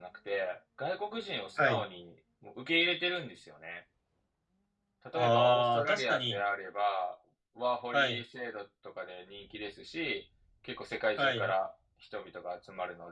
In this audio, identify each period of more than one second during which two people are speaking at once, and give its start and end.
5.1-6.4

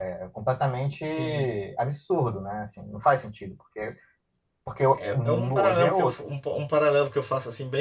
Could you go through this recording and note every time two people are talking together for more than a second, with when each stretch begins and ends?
5.0-6.2

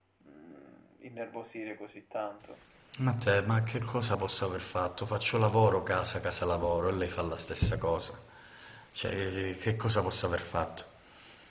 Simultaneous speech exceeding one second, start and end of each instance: none

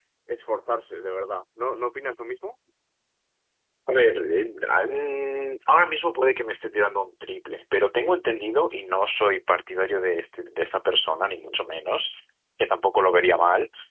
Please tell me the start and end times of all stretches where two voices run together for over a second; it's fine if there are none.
none

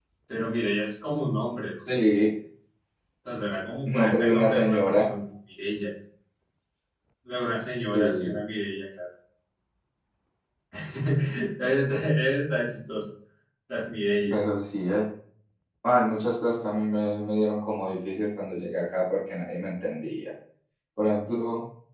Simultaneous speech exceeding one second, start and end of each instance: 3.8-5.1

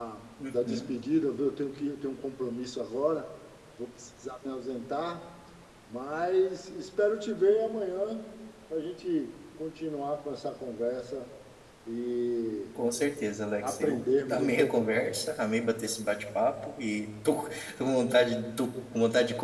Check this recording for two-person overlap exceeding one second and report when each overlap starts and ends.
13.6-15.2

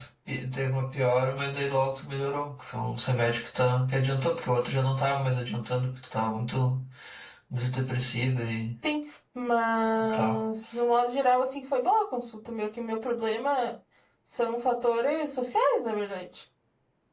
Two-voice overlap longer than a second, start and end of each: none

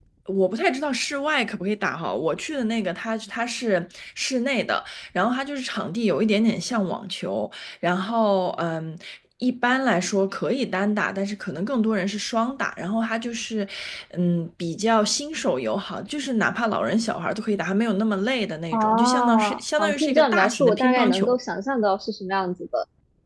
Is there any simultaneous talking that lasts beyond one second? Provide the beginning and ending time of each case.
18.7-21.4

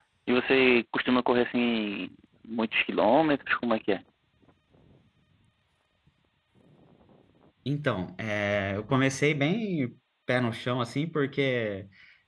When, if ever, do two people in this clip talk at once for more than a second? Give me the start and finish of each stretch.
none

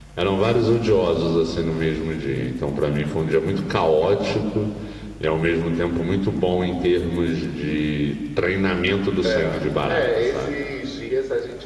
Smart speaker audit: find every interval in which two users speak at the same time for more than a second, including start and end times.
9.2-10.6

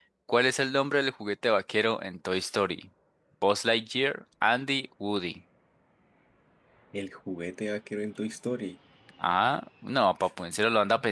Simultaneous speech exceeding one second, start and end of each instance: none

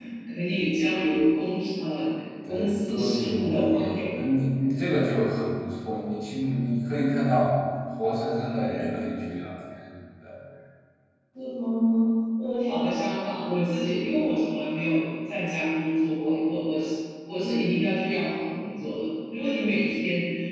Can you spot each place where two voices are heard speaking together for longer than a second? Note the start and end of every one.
2.5-4.1

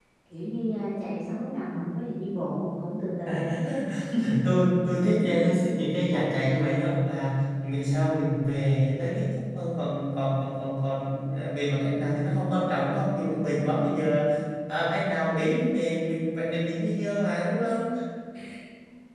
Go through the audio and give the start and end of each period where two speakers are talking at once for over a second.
none

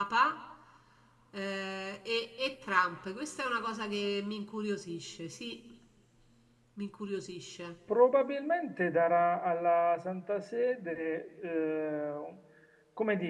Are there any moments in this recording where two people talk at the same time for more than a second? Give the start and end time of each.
none

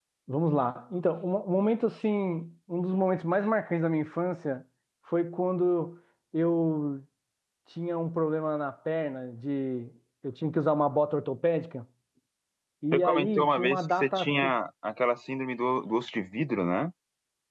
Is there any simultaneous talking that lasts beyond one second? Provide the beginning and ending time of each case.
12.9-14.5

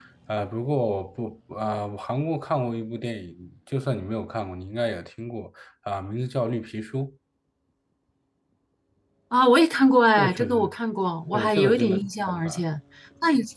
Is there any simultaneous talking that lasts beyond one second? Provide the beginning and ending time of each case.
11.3-12.6

